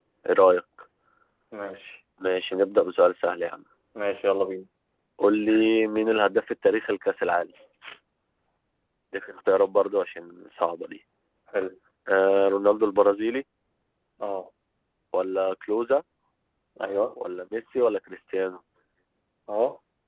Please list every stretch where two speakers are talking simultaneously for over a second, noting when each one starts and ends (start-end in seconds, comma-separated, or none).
none